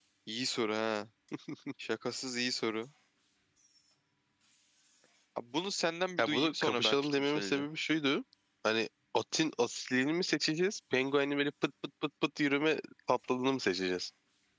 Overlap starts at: 6.2 s

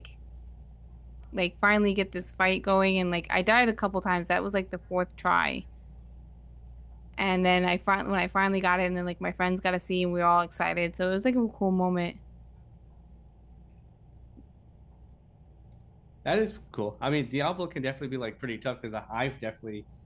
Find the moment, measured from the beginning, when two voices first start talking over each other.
none

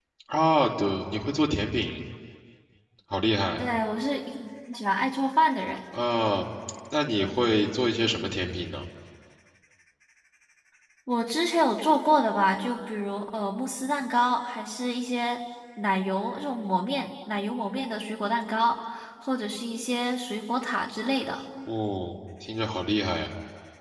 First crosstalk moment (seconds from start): none

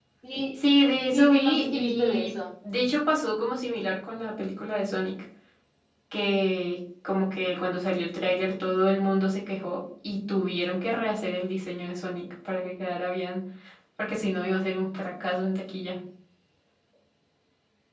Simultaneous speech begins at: 1.1 s

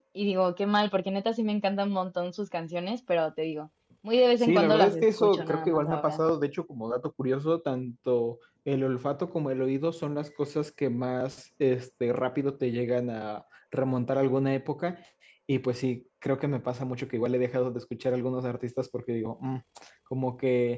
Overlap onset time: 4.4 s

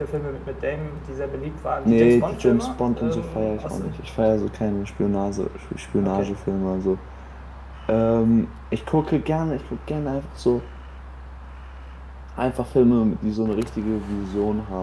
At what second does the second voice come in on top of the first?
1.9 s

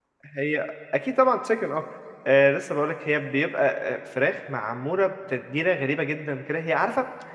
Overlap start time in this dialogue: none

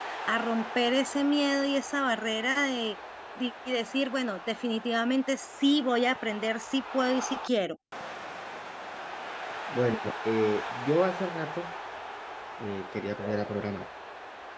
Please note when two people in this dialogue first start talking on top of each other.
none

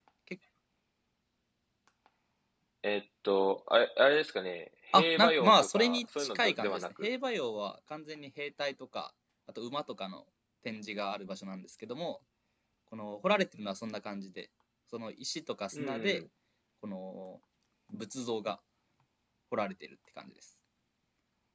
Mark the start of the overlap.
4.9 s

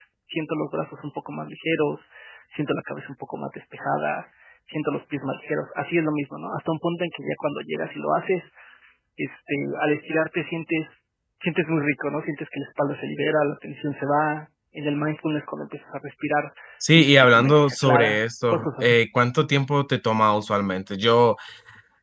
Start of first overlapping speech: 16.8 s

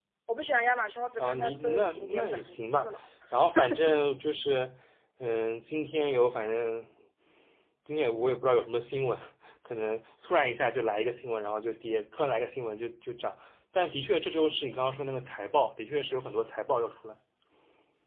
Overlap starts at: 1.2 s

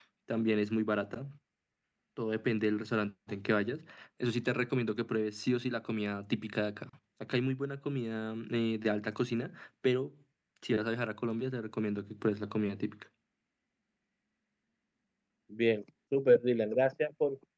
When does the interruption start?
none

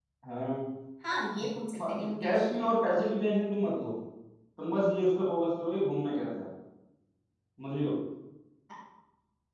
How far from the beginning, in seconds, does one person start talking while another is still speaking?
1.9 s

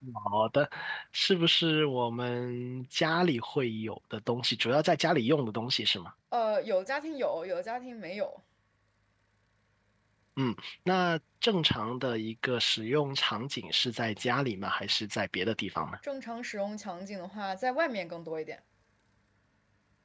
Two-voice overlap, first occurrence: none

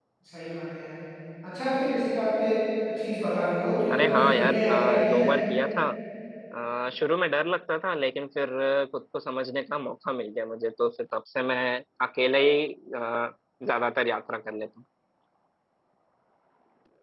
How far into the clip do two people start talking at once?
3.9 s

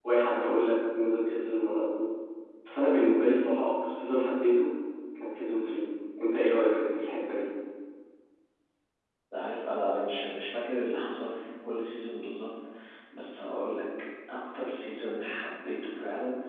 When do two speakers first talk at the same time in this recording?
none

